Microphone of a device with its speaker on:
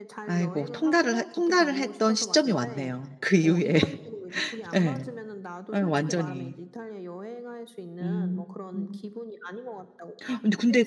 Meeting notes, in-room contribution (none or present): present